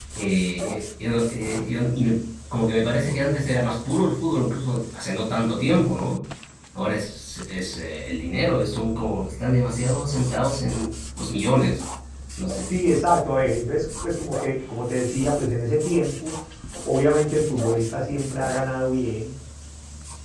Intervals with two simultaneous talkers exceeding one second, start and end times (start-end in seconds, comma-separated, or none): none